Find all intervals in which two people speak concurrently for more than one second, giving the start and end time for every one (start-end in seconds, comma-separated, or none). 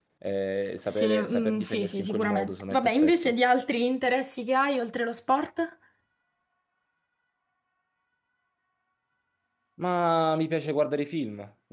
0.8-3.3